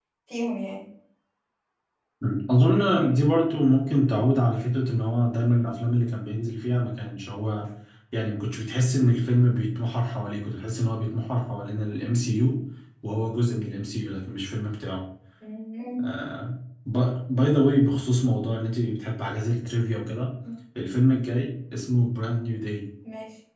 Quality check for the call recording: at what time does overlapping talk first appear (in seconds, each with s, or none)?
none